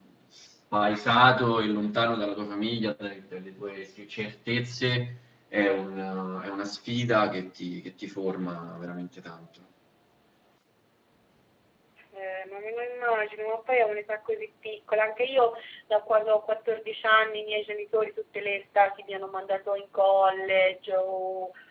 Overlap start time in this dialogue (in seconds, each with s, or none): none